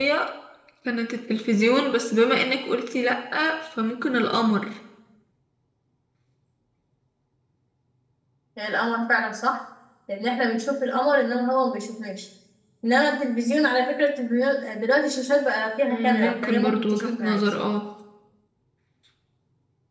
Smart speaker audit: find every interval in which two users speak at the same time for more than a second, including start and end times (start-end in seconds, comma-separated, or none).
15.9-17.5